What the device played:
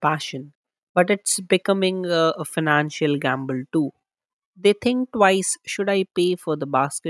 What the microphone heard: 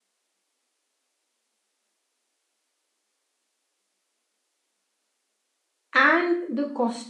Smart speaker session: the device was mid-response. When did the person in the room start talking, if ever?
5.9 s

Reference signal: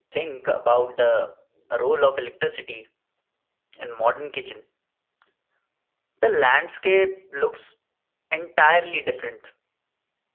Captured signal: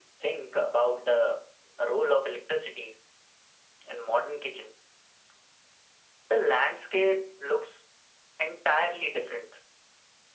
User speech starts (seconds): none

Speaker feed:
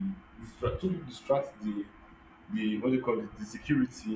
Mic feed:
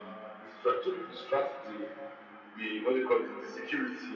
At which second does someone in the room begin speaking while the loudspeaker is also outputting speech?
none

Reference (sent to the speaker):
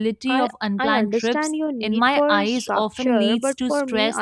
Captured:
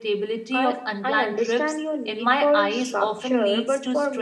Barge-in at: none

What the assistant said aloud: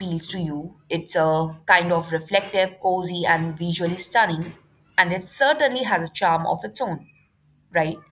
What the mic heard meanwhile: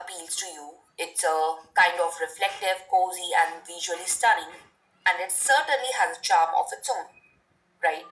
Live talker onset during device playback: none

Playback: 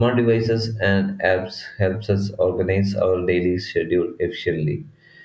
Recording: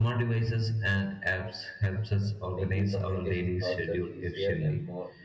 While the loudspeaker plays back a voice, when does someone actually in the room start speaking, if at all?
2.5 s

